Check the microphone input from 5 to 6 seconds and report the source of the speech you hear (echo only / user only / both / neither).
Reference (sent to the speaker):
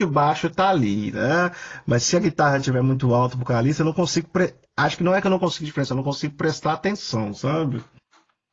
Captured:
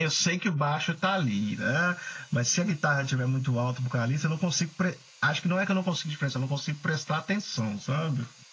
echo only